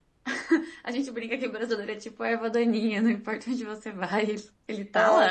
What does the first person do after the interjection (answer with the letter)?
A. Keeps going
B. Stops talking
B